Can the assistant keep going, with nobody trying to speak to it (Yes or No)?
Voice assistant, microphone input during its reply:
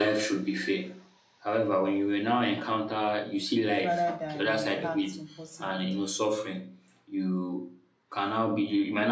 No